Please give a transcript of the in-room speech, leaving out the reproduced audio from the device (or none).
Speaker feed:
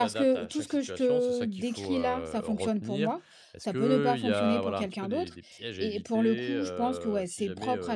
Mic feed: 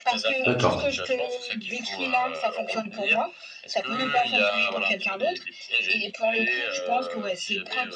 D'accord,